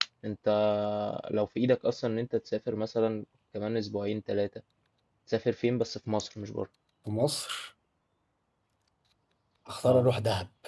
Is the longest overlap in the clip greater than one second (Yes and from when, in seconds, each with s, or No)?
No